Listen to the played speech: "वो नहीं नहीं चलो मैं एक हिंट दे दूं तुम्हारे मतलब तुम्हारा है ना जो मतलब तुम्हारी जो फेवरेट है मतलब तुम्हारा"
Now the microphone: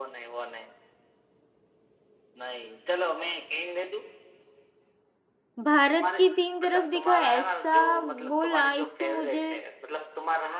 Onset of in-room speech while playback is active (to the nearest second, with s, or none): 6 s